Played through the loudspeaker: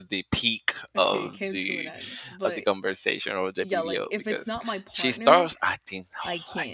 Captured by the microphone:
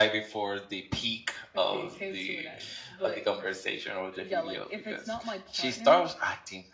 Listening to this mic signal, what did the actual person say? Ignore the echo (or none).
none